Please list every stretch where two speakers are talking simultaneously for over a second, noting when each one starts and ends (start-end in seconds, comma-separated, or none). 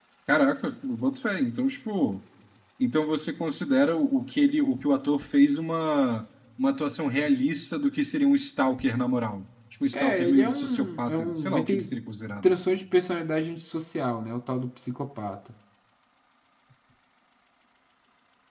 9.9-12.0